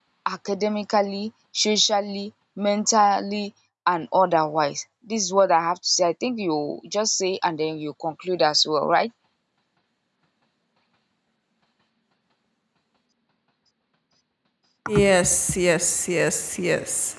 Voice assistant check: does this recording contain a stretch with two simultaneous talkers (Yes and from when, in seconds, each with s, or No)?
No